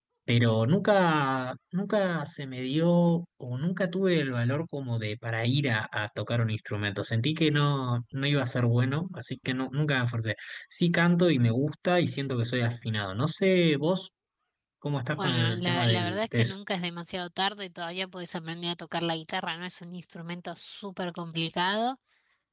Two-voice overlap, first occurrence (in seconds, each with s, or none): 15.1 s